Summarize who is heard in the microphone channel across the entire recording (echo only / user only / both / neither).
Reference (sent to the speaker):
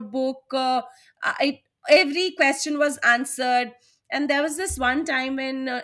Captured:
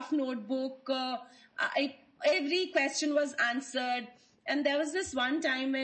echo only